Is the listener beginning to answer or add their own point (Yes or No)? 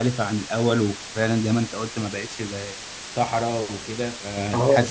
Yes